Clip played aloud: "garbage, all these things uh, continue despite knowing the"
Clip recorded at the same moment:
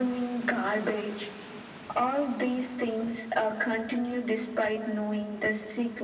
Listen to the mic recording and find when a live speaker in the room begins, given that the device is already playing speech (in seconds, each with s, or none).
none